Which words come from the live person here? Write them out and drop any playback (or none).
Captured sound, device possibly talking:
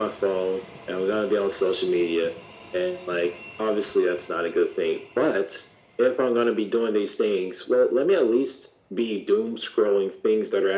none